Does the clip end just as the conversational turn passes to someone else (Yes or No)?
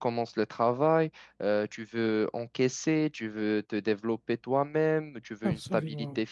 No